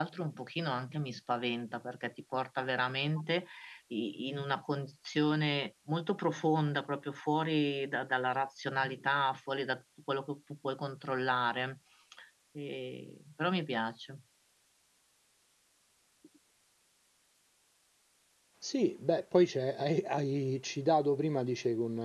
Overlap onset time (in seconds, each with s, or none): none